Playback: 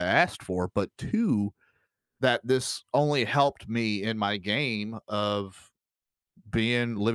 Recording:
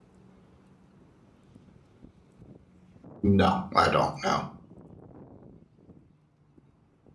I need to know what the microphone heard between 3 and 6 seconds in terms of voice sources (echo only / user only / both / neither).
user only